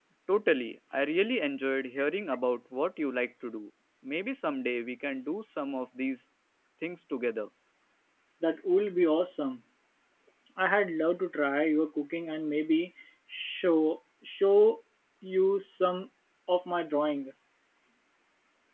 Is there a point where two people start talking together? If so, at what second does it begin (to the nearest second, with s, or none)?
none